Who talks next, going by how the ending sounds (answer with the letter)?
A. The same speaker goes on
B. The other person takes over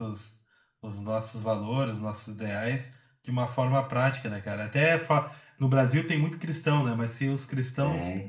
A